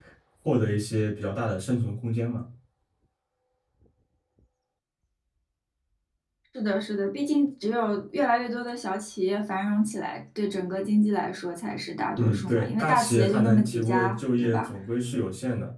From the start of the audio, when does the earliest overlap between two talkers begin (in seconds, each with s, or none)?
12.2 s